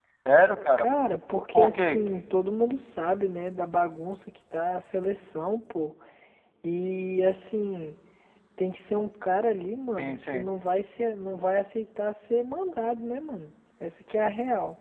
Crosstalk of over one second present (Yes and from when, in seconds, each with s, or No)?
No